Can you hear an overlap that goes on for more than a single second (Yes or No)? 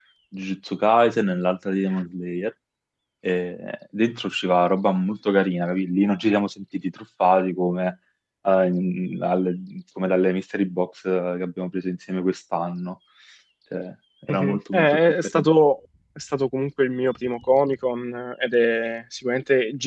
Yes